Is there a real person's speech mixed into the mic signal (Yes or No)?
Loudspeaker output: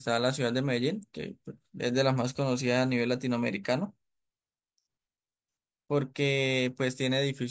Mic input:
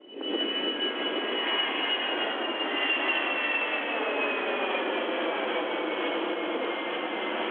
No